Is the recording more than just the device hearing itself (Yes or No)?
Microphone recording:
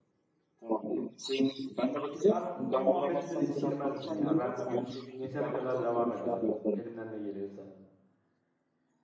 Yes